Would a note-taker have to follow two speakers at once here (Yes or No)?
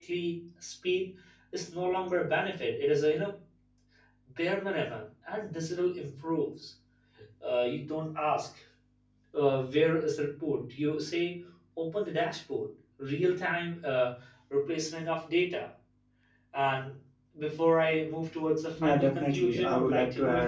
Yes